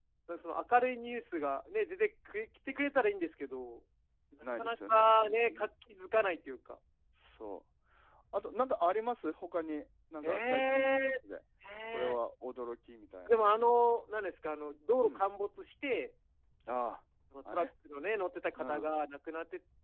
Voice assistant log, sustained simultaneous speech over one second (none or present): present